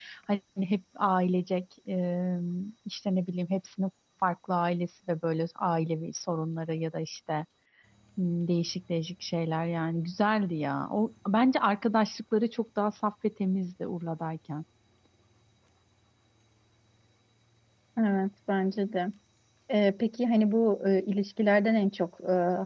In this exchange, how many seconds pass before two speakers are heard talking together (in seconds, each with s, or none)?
none